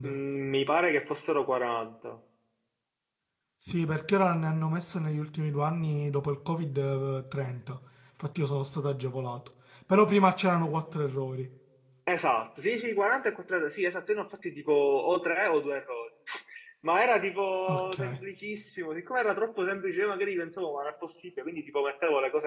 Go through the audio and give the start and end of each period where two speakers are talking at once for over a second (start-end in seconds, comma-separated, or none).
none